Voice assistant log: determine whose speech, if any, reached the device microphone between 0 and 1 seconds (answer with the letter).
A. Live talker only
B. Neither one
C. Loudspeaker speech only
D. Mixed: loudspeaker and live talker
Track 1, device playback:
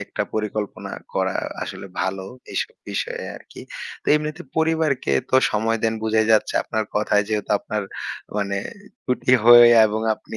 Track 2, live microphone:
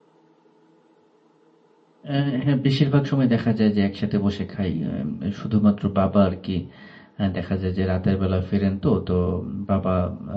B